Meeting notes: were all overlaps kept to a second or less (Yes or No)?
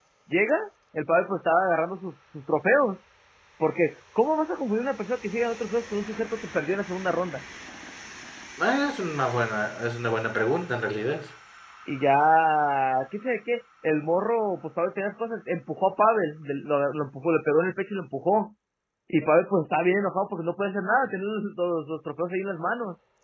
Yes